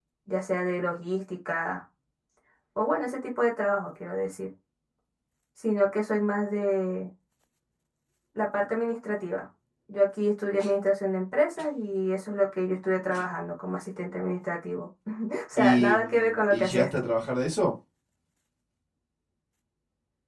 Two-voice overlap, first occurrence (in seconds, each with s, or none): 15.6 s